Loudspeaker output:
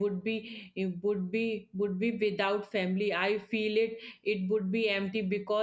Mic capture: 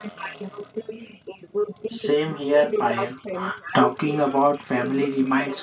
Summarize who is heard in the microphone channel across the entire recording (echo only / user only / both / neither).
both